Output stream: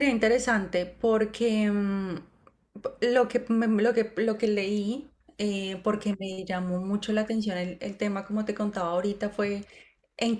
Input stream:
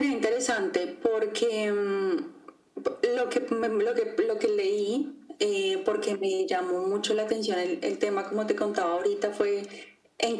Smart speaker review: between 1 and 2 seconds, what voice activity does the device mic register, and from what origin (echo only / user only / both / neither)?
echo only